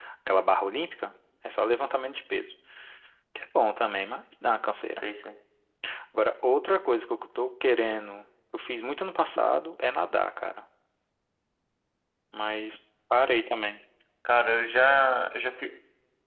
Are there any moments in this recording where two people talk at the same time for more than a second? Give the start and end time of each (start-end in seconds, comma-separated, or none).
none